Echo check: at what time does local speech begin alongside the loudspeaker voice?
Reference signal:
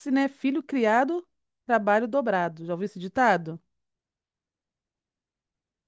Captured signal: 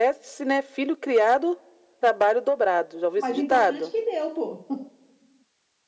3 s

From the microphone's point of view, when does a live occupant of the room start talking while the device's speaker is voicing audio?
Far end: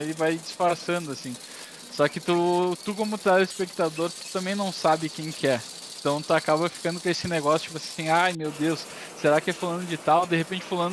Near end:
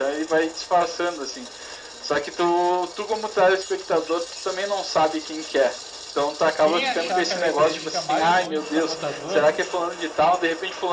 7 s

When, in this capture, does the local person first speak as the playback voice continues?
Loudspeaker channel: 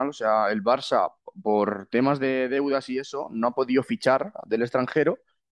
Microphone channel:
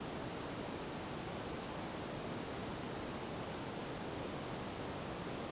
none

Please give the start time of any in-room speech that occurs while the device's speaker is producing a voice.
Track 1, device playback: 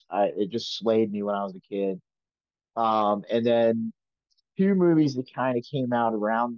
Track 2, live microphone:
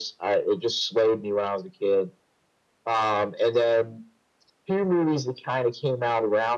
none

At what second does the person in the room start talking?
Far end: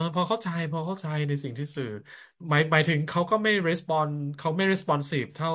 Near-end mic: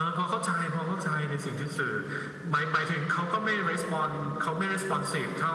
none

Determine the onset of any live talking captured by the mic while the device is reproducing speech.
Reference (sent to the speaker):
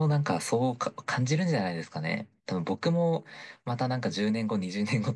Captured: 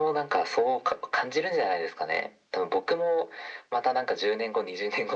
none

